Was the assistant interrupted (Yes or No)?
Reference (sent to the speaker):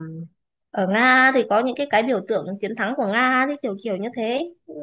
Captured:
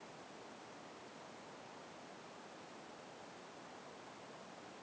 No